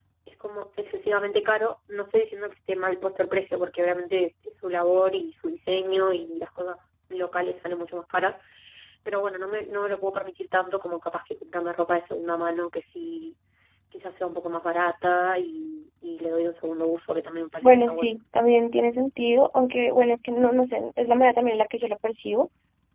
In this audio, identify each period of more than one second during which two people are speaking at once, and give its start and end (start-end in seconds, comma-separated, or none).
none